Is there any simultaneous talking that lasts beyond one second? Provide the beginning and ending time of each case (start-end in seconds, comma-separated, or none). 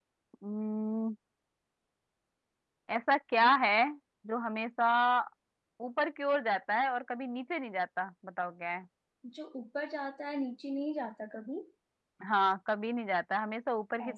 none